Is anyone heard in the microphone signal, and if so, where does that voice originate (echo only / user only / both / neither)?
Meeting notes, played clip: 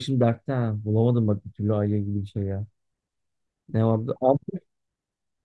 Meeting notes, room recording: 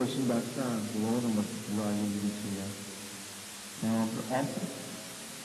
echo only